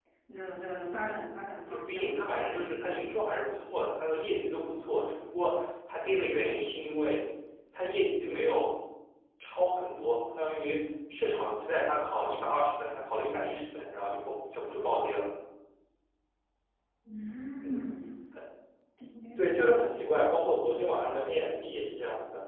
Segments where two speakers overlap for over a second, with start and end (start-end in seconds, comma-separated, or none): none